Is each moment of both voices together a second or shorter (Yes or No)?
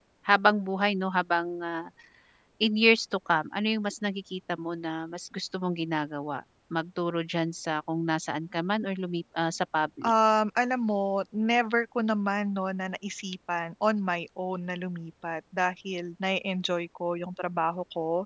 Yes